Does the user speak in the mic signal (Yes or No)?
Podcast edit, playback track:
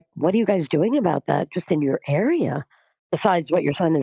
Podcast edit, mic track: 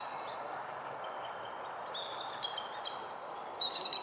No